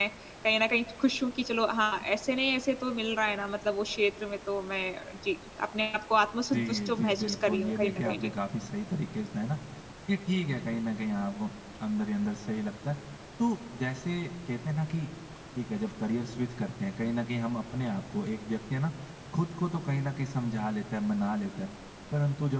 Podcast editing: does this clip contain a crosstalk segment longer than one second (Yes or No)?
Yes